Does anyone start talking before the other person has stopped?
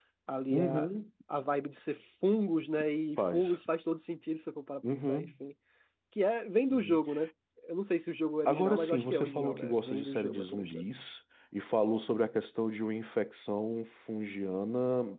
Yes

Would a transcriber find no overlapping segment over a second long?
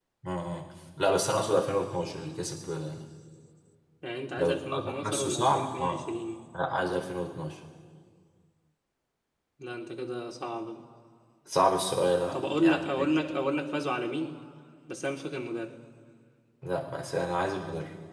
No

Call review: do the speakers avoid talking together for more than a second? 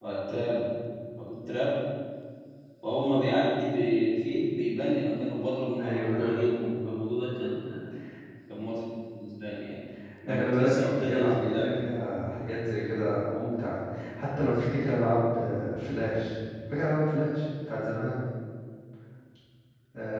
No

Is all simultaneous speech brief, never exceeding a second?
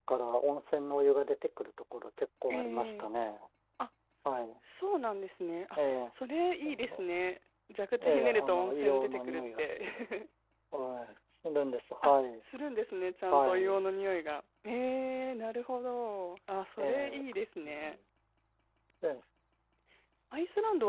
No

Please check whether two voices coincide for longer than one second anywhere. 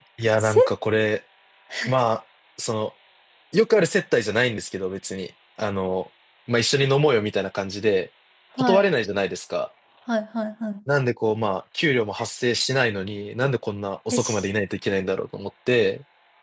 No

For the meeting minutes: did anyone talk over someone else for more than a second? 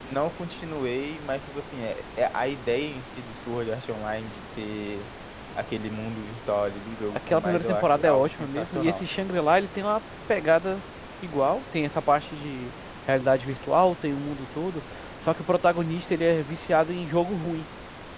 Yes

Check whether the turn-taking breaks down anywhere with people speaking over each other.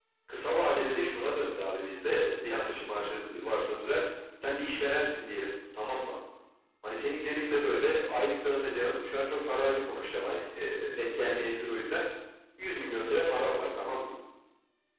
No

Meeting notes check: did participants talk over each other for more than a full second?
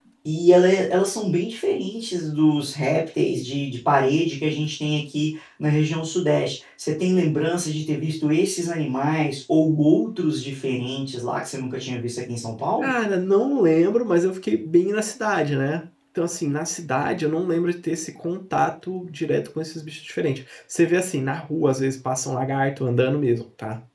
No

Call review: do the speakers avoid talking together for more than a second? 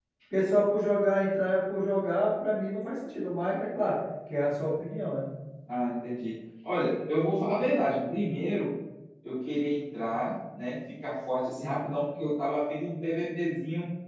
Yes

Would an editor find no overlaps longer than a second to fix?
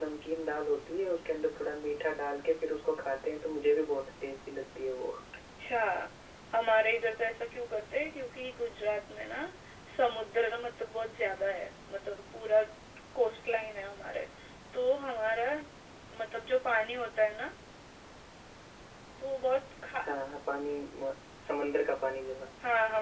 Yes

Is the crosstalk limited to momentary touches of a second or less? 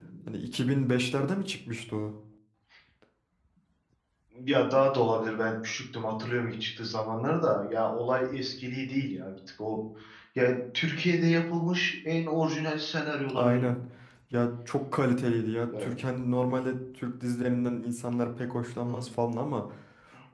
Yes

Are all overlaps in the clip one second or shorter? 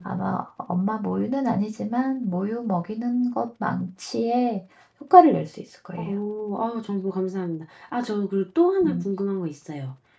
Yes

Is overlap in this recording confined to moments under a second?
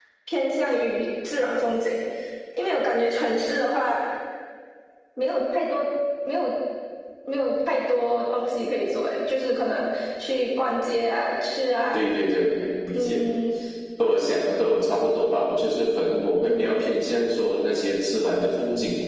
Yes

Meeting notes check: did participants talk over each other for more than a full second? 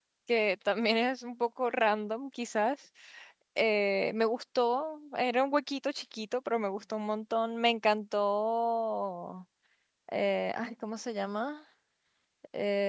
No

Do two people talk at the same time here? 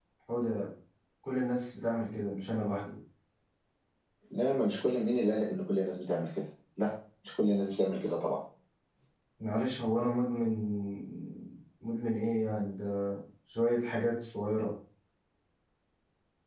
No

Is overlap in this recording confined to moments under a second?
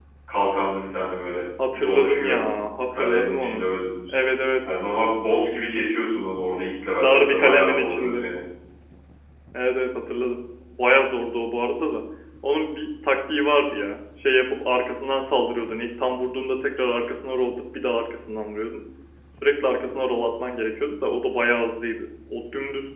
No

